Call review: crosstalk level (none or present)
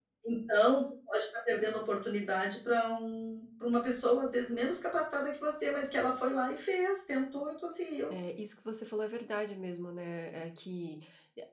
none